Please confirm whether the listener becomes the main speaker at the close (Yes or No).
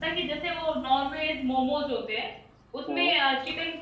No